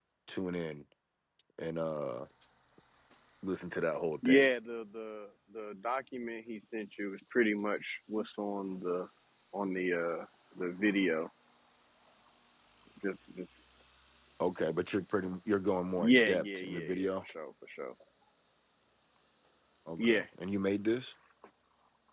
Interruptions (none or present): present